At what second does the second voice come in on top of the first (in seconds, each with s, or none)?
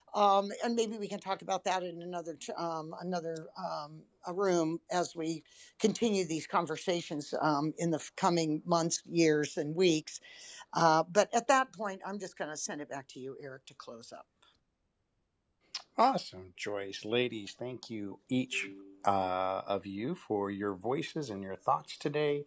none